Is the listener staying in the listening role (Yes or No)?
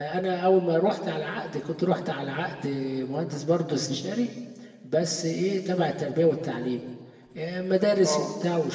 Yes